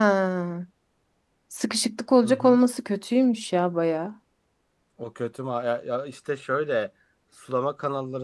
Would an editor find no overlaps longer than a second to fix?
Yes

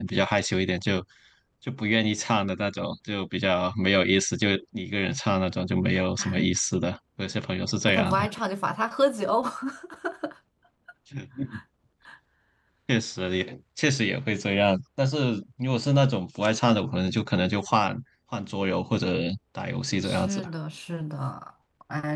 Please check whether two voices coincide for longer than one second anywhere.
No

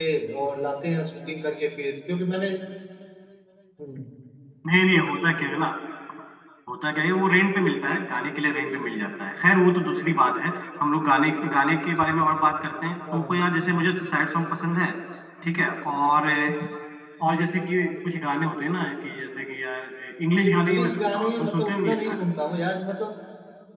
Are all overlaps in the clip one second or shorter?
No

